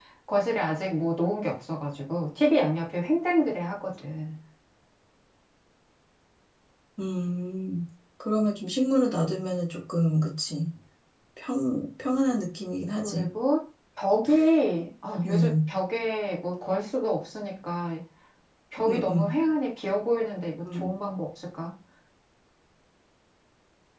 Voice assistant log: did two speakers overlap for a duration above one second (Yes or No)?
No